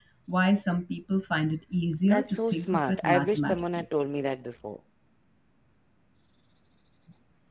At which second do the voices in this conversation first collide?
2.0 s

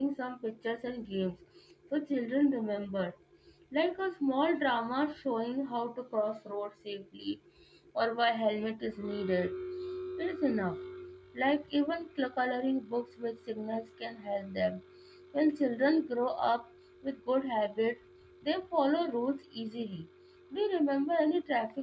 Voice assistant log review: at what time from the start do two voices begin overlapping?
none

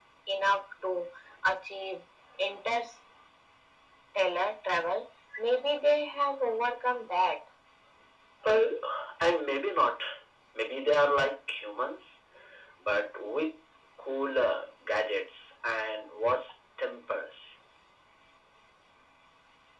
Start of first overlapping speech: none

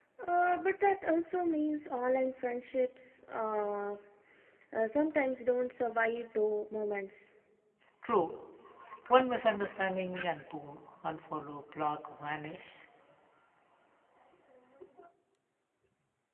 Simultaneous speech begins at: none

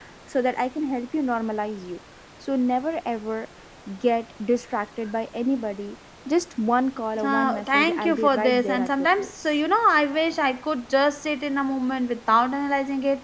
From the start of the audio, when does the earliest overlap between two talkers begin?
7.2 s

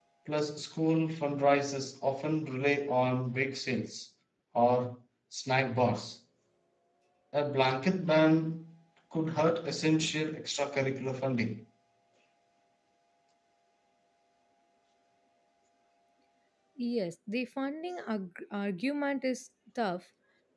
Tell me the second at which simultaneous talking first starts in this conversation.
none

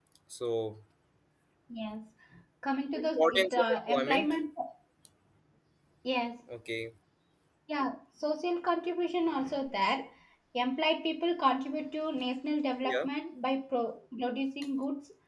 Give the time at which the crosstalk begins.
3.0 s

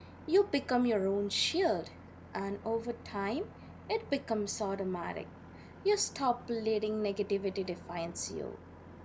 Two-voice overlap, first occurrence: none

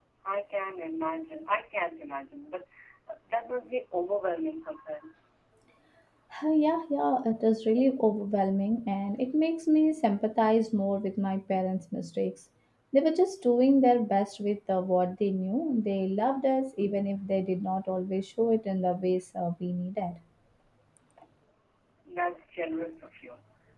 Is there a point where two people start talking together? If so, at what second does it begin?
none

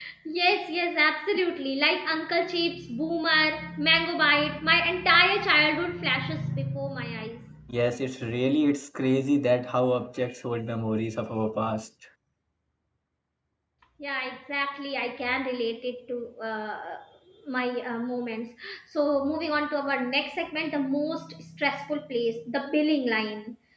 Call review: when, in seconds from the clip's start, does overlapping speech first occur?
none

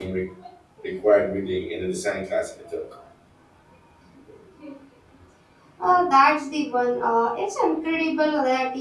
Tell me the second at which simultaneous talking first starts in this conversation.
none

